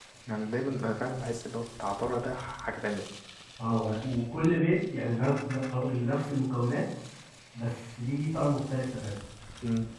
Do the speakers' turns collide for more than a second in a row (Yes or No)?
No